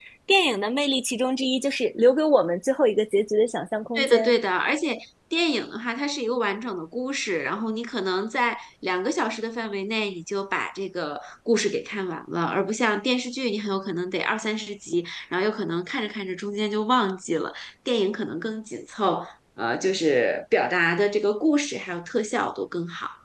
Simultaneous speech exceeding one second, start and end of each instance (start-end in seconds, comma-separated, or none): none